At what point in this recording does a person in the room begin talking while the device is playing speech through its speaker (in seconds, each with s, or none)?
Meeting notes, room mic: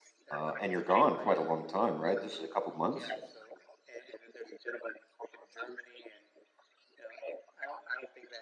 0.3 s